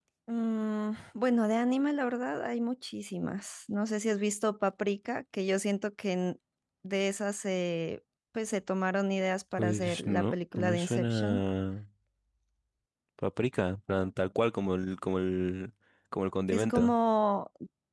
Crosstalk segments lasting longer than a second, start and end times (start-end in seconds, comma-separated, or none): 9.5-11.4